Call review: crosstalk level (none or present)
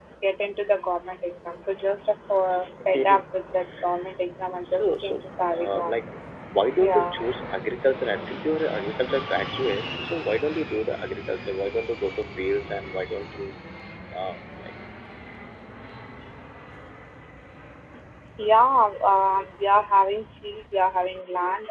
present